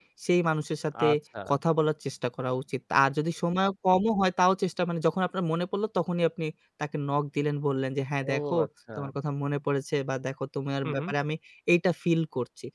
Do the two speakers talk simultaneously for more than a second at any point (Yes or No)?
No